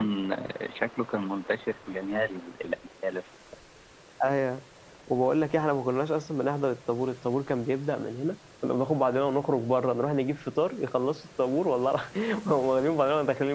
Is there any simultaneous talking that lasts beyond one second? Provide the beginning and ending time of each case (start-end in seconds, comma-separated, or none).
none